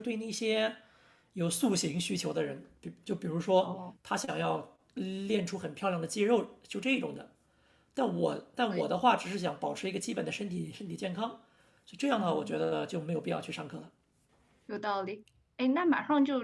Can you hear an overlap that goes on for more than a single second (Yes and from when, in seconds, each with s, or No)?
No